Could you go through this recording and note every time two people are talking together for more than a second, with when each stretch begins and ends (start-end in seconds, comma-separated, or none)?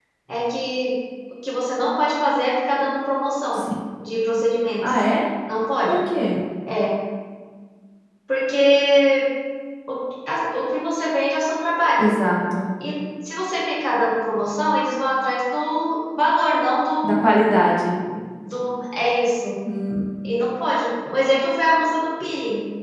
none